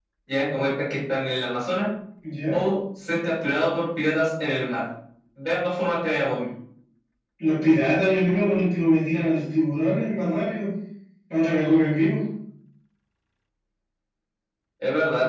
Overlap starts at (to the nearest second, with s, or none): none